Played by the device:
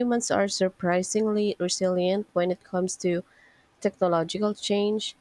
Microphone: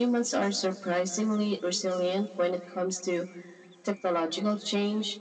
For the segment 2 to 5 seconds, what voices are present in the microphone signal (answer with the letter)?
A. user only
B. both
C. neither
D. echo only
D